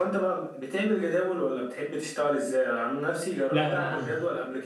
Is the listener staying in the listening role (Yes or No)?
Yes